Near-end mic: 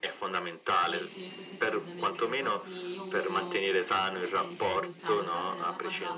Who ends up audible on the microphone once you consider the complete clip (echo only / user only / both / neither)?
both